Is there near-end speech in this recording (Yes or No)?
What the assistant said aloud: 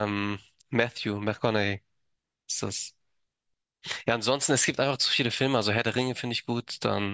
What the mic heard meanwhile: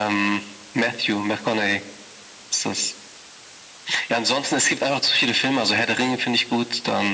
No